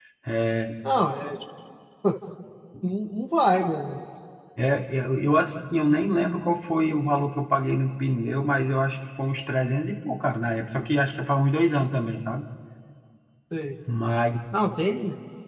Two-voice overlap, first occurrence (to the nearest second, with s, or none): none